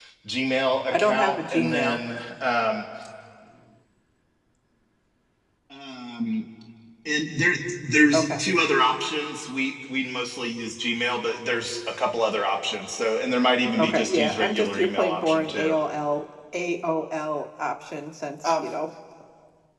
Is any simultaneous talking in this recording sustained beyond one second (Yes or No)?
Yes